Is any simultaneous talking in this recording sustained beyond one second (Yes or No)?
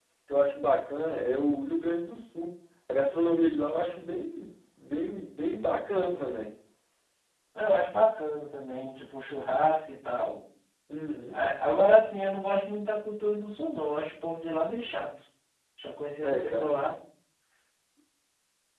No